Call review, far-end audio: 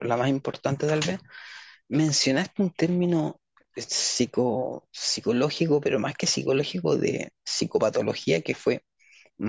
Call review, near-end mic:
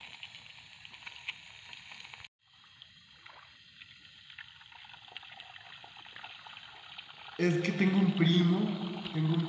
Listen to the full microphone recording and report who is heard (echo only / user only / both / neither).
user only